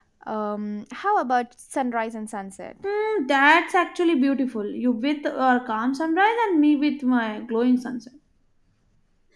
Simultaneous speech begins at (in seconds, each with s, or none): none